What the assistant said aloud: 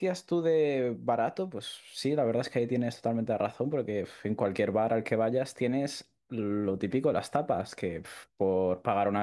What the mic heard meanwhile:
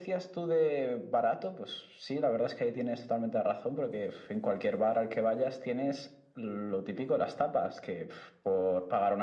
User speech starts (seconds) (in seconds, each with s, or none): none